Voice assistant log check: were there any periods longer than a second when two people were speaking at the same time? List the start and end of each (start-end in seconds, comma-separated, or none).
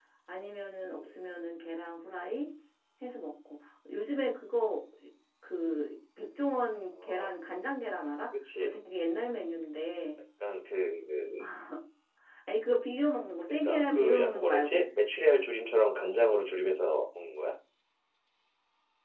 13.5-14.9